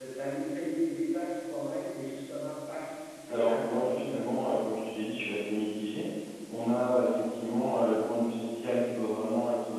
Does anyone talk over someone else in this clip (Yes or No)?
Yes